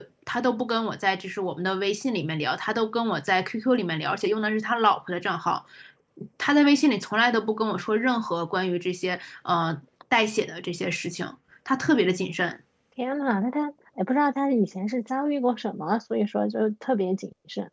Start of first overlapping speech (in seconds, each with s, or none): none